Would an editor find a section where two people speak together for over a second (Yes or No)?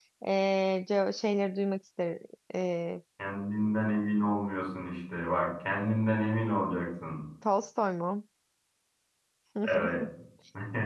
No